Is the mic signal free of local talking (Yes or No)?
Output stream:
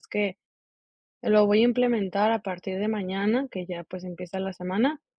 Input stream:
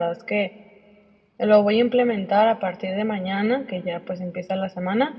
Yes